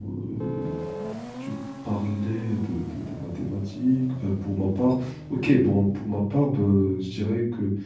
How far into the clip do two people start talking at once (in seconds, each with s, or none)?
none